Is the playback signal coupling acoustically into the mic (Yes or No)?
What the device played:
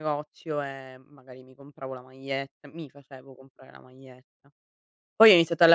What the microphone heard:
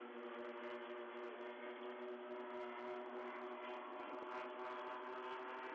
No